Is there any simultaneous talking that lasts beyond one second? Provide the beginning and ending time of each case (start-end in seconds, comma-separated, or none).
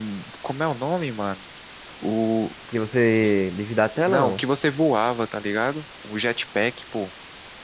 none